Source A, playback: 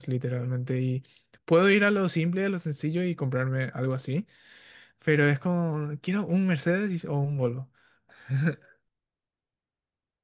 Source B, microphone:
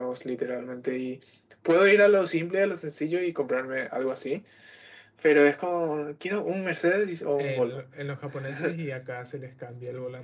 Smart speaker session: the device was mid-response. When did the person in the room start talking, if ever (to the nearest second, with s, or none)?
7 s